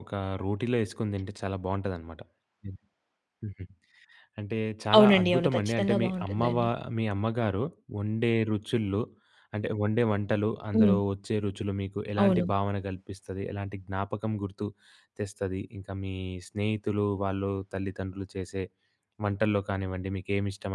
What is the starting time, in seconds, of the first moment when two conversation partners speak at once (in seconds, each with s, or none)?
5.0 s